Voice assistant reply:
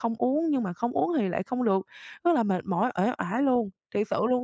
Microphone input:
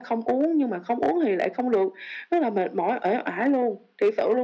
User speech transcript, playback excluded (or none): none